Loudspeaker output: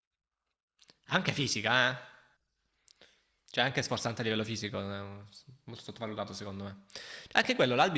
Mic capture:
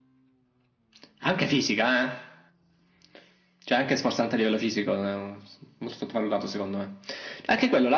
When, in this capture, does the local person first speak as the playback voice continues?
none

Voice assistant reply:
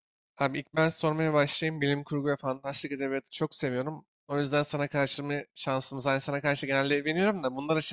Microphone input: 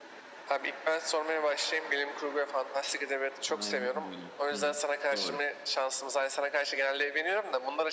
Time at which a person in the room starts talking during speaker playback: 3.5 s

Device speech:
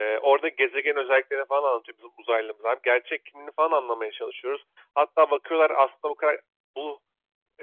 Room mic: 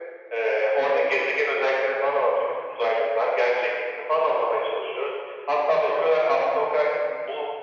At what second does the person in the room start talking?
none

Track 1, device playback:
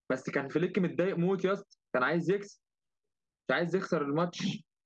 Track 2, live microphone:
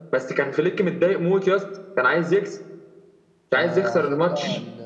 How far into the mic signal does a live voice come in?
3.5 s

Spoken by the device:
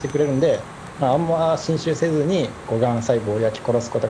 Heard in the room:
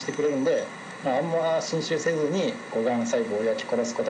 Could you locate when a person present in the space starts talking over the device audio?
none

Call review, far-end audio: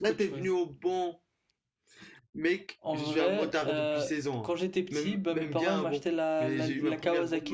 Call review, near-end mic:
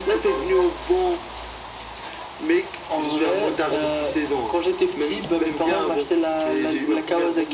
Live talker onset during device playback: none

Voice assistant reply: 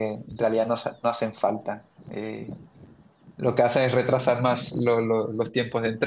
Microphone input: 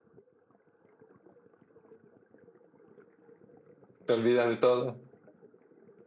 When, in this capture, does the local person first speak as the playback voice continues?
4.0 s

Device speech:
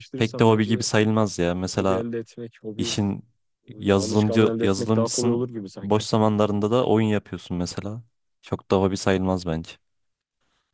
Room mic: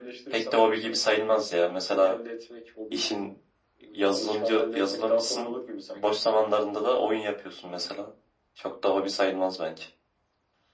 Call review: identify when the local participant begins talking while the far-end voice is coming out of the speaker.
none

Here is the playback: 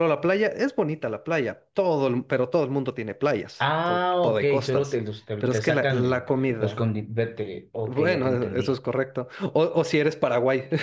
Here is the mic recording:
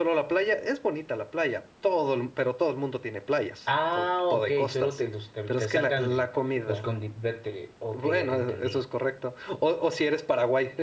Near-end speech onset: none

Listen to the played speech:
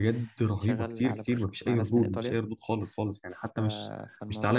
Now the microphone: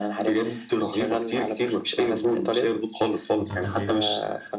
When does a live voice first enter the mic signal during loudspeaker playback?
3.4 s

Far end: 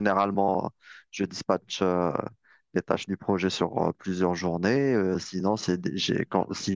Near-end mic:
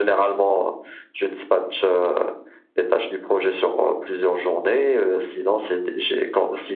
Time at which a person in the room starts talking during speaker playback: none

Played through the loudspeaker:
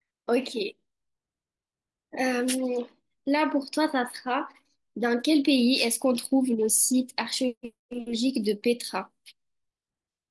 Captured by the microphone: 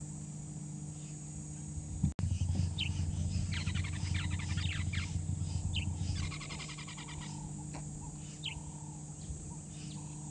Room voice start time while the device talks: none

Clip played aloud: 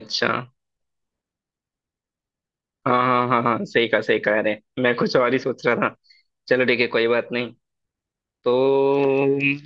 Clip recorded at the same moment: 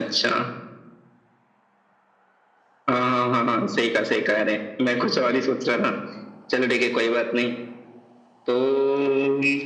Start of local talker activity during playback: none

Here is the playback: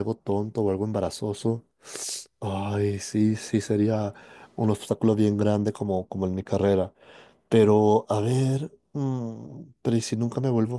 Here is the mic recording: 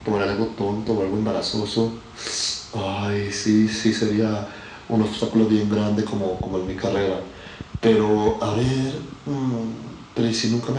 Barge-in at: none

